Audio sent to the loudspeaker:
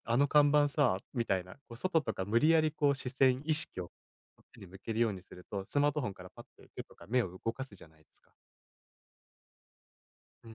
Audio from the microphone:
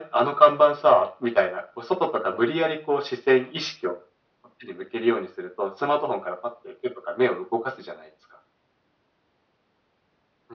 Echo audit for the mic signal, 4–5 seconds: echo only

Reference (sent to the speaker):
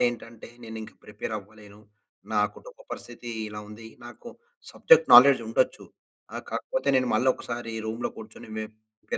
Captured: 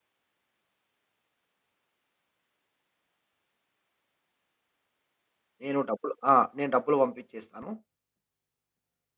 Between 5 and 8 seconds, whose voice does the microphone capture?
user only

